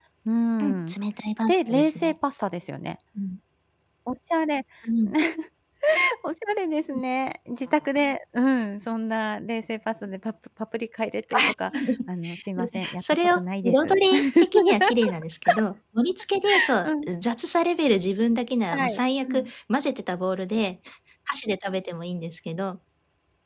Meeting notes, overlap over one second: present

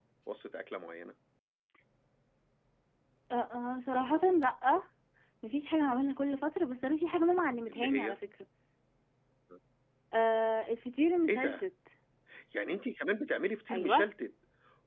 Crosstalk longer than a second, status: none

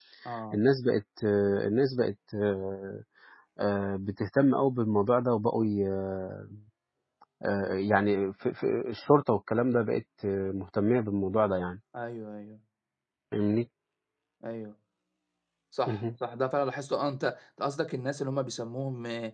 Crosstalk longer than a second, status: none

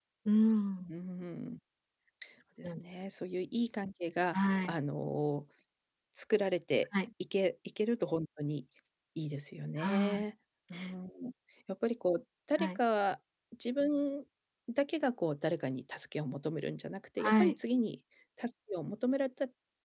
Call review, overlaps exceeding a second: none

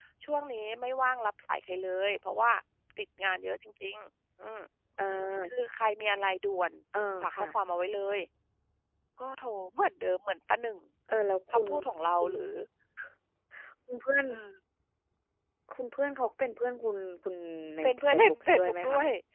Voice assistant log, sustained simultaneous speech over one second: present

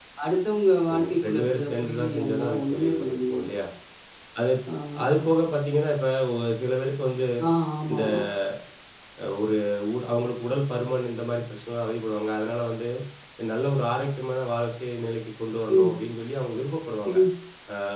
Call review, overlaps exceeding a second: present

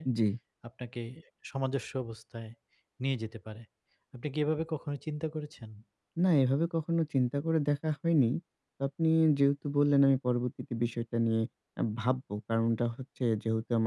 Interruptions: none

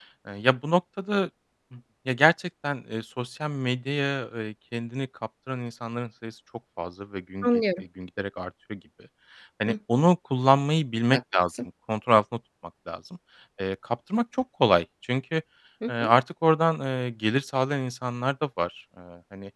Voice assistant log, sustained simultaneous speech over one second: none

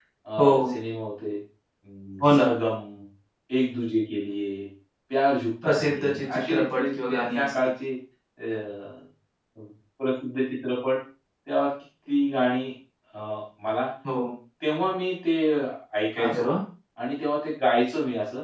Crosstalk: present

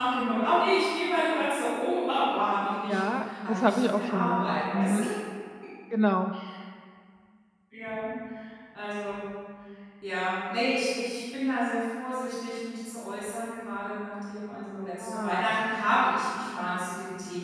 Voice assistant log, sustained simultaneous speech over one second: present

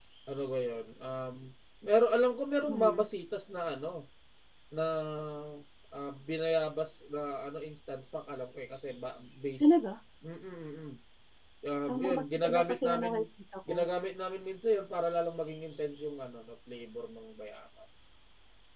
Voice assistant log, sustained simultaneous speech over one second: present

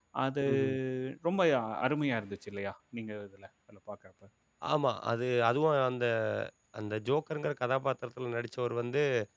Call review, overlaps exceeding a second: none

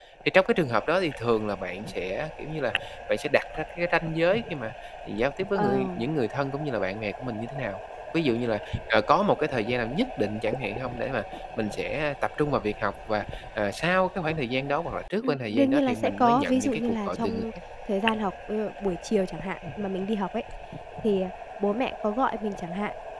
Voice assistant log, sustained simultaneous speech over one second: present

